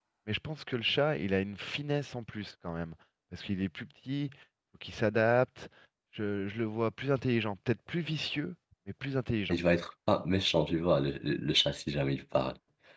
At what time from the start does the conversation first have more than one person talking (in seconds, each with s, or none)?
none